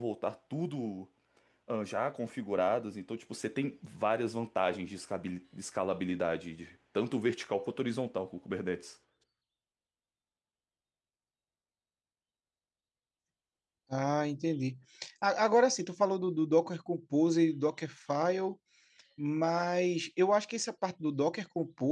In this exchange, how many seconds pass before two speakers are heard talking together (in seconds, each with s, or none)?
none